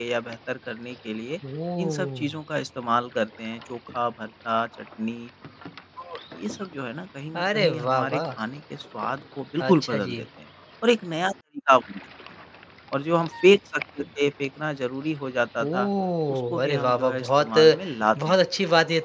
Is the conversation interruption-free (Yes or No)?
No